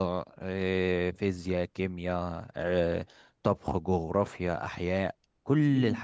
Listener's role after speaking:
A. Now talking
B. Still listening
A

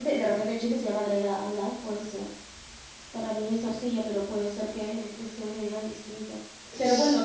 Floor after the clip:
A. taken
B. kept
B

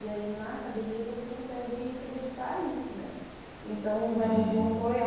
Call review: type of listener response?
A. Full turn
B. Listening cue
B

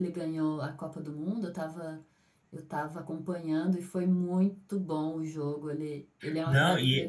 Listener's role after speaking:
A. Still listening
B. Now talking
B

